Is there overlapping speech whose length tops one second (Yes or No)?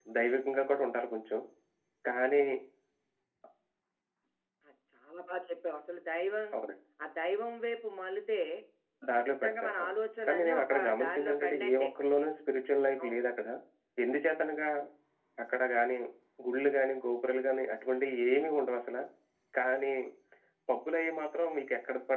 Yes